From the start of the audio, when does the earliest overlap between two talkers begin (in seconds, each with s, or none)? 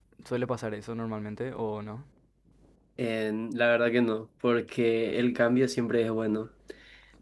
none